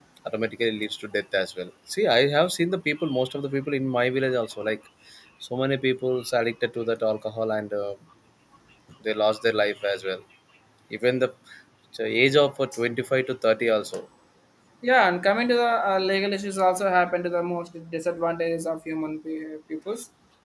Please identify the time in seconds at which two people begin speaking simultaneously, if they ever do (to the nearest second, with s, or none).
none